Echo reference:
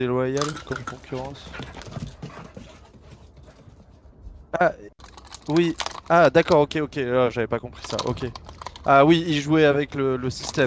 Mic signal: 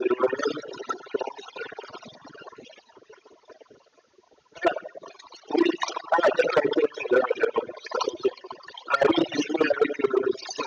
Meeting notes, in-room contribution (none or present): none